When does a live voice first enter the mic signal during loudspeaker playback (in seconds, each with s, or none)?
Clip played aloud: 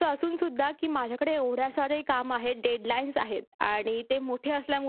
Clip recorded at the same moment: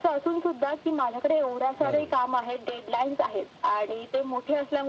1.8 s